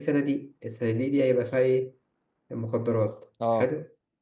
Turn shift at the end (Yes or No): No